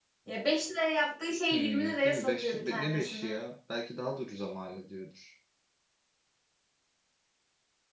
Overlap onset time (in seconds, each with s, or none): 1.5 s